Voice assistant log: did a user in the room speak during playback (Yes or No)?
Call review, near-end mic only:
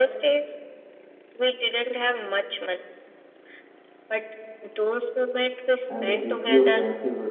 Yes